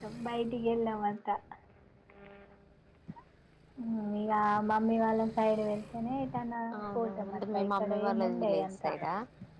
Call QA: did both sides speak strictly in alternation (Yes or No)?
No